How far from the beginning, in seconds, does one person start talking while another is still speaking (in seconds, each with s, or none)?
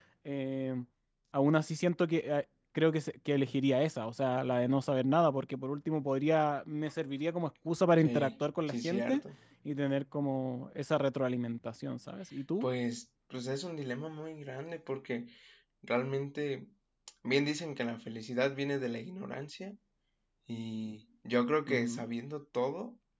8.0 s